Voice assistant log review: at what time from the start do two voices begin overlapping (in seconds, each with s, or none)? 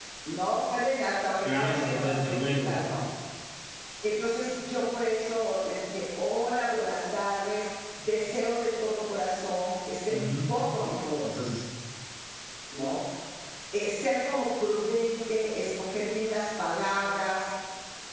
1.4 s